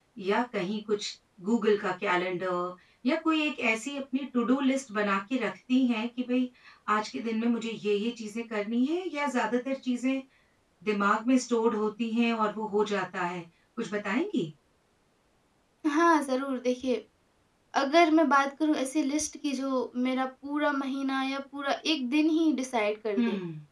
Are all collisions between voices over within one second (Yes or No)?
Yes